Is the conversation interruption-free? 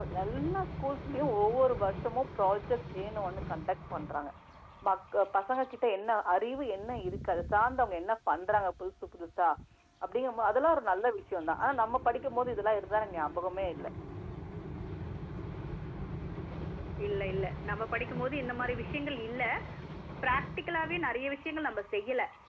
Yes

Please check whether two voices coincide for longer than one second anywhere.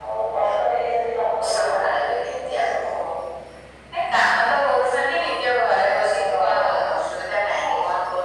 Yes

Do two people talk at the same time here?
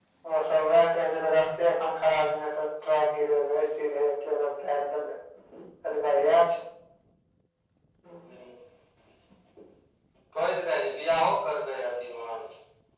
No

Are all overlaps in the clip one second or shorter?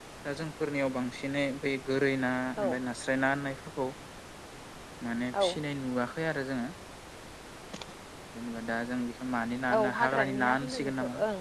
No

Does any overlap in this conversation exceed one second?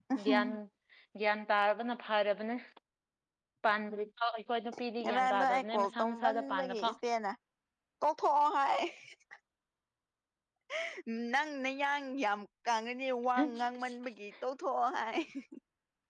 Yes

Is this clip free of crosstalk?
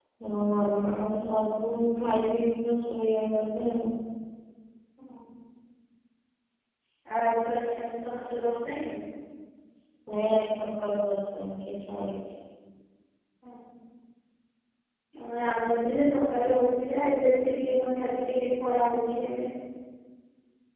Yes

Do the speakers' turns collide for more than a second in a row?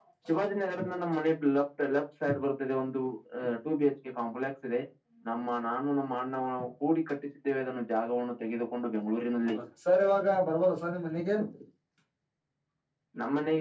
No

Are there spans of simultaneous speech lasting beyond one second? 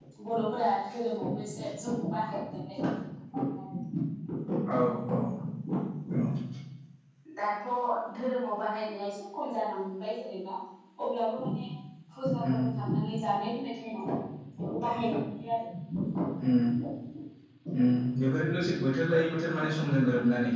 No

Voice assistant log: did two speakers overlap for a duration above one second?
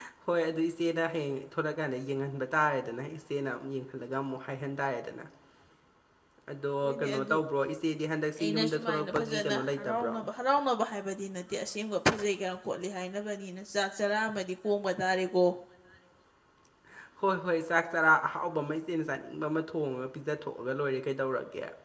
Yes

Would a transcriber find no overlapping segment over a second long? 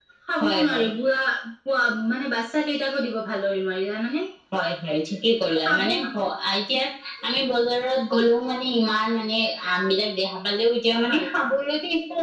Yes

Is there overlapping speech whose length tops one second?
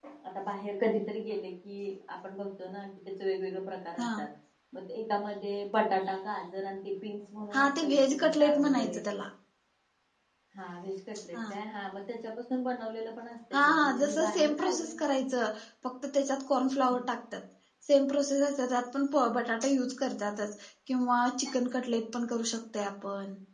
Yes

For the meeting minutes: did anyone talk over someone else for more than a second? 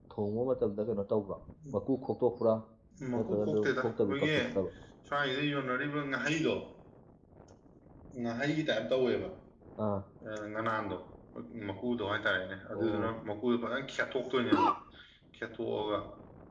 Yes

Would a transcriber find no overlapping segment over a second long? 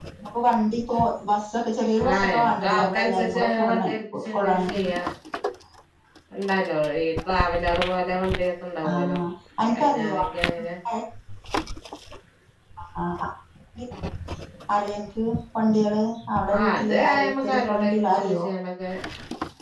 No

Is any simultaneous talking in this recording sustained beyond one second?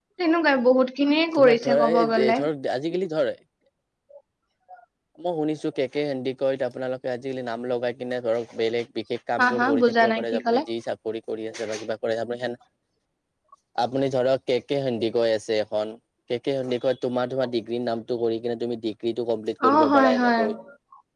Yes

